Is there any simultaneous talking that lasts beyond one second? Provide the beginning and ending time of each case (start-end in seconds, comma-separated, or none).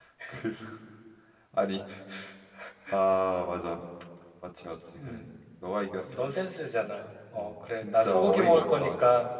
7.3-8.9